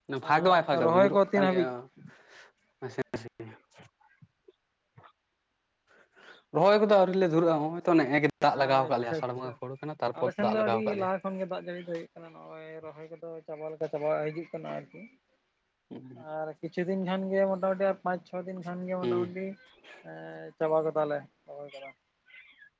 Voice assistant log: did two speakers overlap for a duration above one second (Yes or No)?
Yes